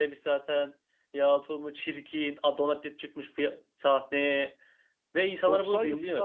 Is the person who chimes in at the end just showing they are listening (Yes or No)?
No